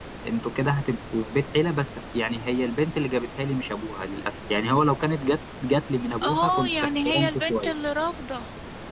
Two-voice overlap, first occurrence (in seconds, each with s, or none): 6.2 s